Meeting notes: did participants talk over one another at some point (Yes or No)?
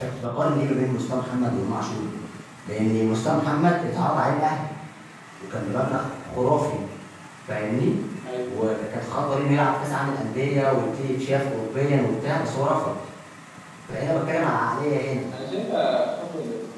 No